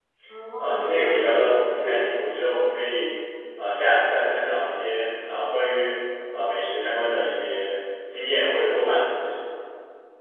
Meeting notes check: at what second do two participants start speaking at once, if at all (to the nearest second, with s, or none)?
1 s